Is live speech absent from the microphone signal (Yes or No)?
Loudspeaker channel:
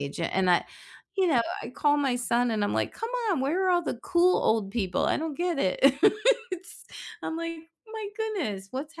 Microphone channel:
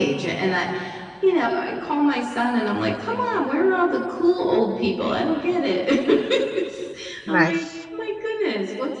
No